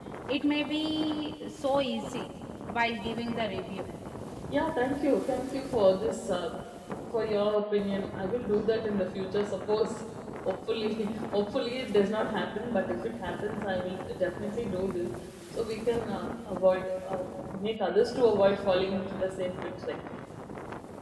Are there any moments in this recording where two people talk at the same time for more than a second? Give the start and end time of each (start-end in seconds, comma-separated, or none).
none